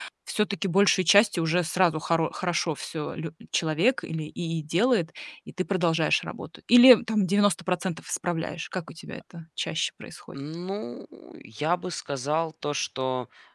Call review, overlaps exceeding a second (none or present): none